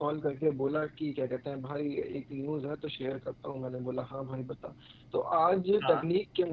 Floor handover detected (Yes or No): No